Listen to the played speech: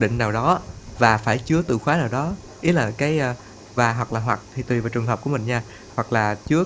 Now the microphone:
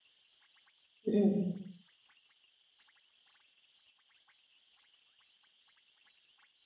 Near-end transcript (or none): Ừm, ừm.